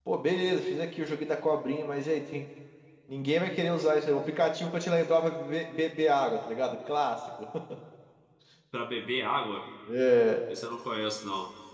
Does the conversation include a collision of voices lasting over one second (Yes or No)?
No